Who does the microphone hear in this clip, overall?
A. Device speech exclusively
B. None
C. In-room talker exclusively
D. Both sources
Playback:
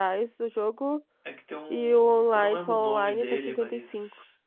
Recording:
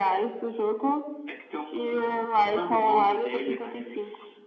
A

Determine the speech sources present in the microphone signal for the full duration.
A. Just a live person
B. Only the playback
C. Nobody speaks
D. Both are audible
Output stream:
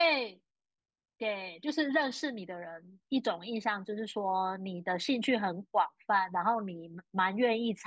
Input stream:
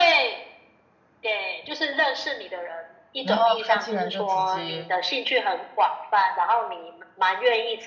D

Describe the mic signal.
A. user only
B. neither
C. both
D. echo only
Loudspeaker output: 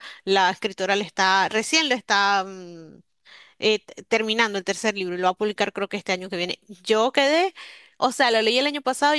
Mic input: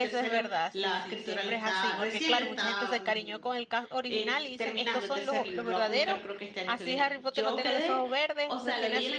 C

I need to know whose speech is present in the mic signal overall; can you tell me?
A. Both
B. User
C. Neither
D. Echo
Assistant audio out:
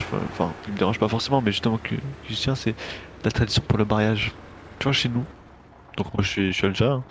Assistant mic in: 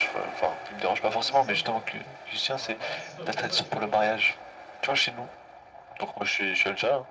A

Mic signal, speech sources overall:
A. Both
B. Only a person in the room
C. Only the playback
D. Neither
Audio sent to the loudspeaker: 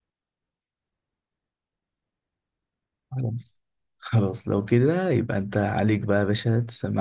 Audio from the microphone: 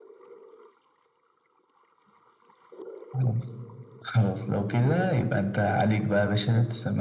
C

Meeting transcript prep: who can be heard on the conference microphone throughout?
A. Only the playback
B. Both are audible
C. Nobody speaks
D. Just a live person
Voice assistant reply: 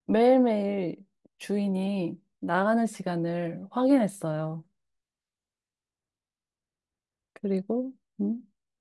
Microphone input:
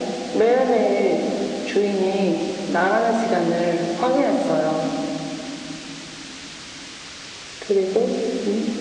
A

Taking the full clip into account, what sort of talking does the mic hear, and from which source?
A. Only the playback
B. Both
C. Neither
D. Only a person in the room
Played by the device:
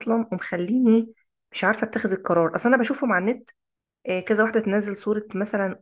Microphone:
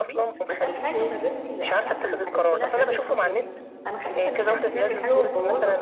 B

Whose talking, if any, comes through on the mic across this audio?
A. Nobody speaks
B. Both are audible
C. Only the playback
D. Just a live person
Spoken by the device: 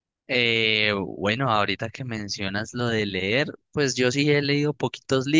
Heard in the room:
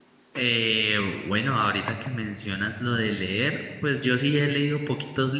C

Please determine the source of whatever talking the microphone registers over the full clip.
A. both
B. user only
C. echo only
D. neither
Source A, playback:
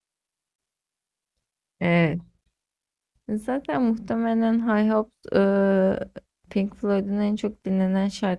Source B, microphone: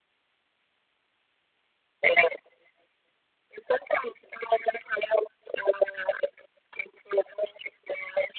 C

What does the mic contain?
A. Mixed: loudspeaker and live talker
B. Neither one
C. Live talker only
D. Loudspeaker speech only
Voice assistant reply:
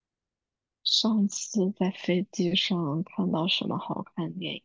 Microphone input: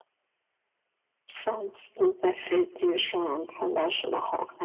D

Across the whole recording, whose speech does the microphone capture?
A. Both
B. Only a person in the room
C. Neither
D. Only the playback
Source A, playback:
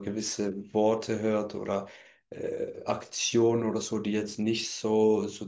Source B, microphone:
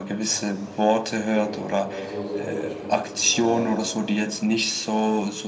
A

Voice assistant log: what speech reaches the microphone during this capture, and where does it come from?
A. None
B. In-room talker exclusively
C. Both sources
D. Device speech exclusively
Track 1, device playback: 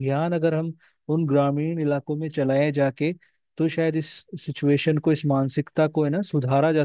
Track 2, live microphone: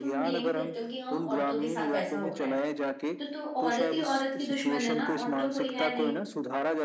C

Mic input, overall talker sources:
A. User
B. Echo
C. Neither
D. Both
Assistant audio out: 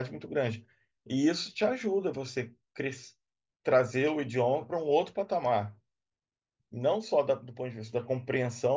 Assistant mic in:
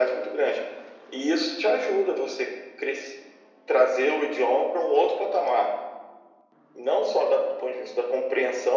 B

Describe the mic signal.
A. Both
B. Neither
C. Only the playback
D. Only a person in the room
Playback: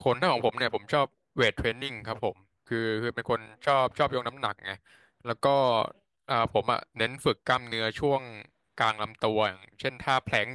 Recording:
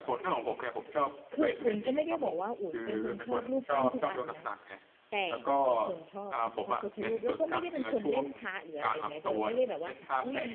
A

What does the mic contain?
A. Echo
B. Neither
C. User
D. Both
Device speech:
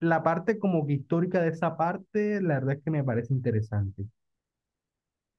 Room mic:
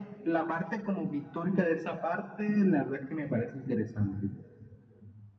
A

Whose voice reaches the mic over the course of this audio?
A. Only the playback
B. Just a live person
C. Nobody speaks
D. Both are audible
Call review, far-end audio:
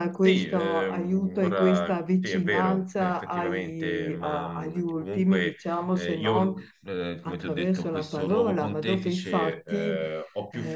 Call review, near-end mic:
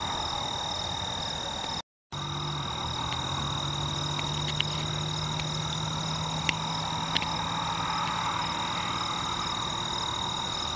C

